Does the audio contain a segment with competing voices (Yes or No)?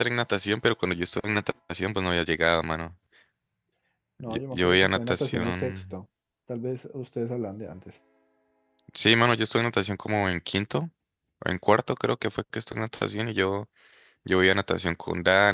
Yes